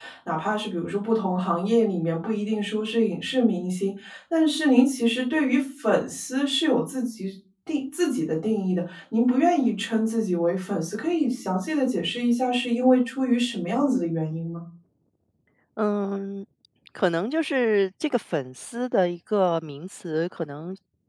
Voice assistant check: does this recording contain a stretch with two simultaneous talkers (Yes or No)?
No